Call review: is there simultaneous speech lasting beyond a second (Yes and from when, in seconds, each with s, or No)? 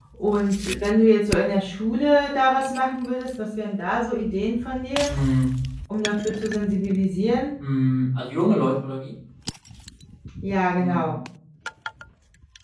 No